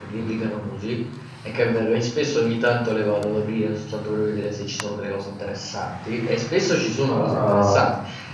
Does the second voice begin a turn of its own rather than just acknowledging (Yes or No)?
No